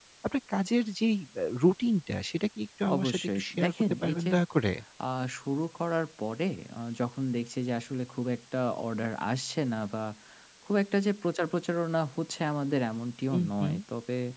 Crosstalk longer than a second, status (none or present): present